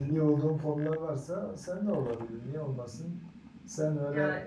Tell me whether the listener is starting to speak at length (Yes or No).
No